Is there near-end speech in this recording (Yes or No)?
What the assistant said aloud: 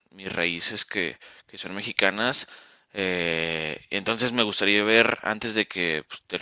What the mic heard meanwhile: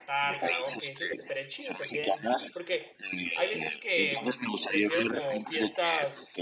Yes